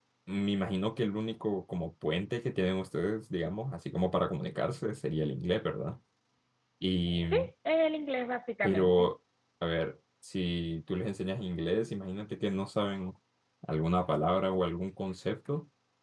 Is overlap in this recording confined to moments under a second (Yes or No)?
Yes